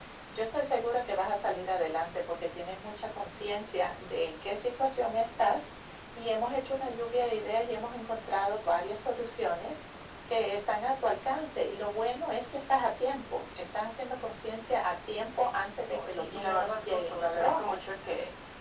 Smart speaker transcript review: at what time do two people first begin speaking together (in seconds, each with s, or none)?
15.9 s